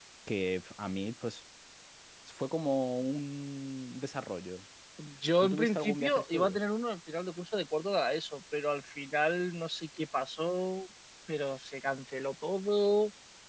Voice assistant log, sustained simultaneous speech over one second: present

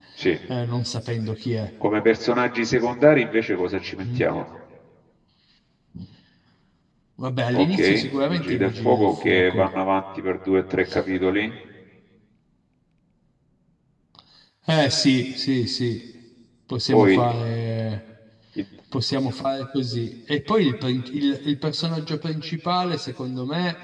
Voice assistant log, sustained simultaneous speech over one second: present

